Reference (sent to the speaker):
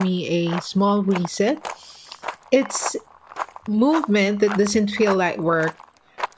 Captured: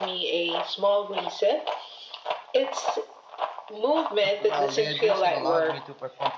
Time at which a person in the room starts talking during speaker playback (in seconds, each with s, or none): 4.2 s